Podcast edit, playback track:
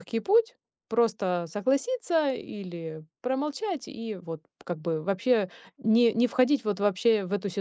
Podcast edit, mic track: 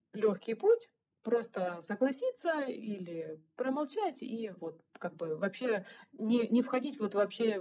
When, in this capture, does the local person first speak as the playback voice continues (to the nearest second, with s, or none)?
none